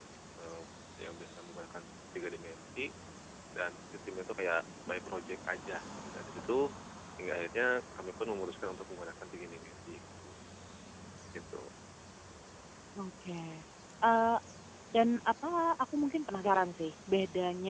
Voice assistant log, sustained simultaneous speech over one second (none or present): none